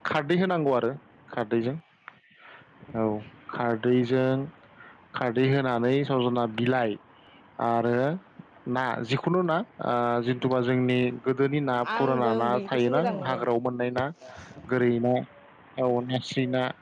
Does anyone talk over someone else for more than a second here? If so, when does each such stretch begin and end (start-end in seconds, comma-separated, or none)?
12.0-13.5